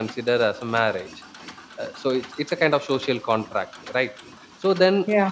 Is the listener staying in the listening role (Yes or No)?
Yes